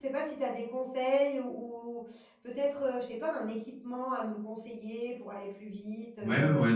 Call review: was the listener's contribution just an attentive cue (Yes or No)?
No